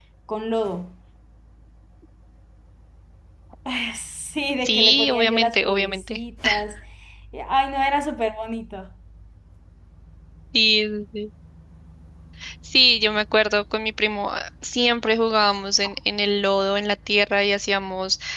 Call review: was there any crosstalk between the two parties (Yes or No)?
Yes